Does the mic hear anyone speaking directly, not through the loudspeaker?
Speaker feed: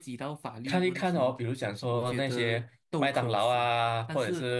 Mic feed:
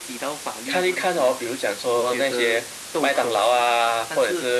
No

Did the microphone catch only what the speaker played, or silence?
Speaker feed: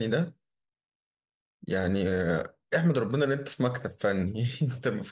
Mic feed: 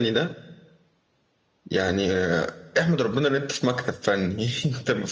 Yes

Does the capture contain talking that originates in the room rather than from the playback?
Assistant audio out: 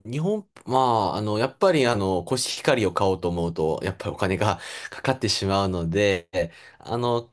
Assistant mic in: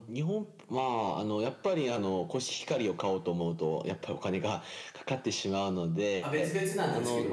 Yes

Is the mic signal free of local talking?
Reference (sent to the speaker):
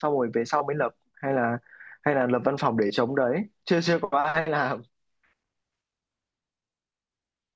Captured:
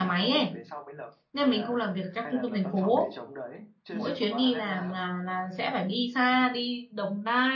No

